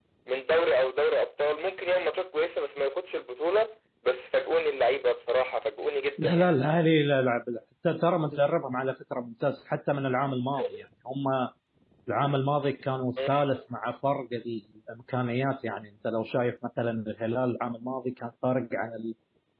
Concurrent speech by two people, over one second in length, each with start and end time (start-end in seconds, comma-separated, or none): none